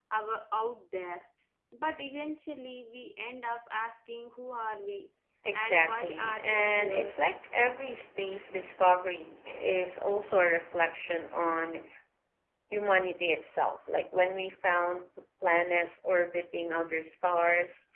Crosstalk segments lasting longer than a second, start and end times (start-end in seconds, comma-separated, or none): 5.5-7.2